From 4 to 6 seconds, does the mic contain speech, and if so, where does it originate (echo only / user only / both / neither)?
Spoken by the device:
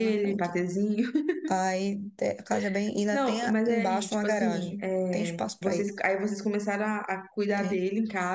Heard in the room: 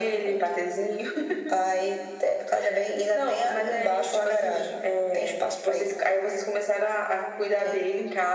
echo only